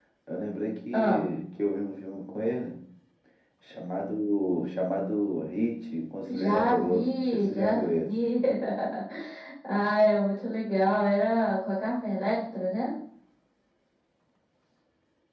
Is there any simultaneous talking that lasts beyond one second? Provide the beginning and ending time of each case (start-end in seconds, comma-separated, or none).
6.3-8.1